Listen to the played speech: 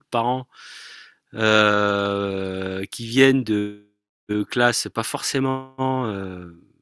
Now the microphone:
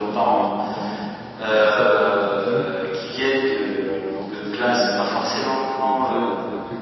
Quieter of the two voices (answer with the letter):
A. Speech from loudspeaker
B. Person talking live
B